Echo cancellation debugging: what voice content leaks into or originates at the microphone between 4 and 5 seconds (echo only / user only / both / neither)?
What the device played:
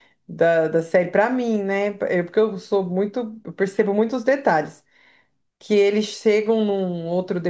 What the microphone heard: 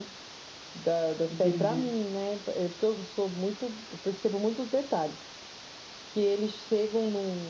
echo only